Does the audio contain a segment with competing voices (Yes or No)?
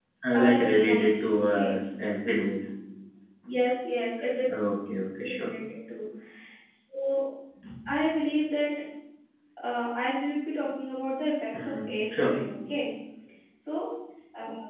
Yes